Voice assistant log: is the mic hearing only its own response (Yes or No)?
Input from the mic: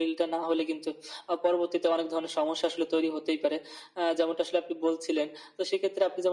Yes